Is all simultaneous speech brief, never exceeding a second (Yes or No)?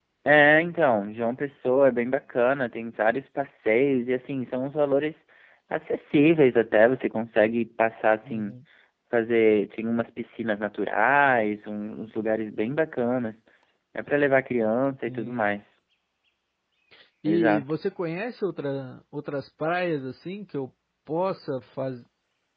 Yes